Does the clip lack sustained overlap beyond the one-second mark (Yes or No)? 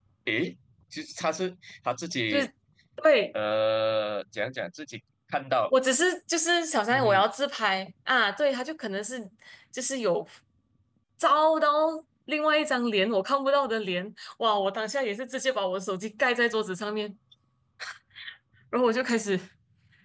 Yes